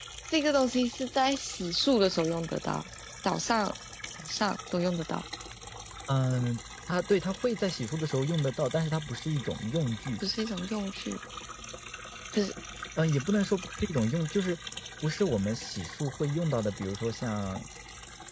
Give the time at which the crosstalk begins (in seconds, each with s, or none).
none